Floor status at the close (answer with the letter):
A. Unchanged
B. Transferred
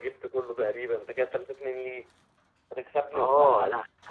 B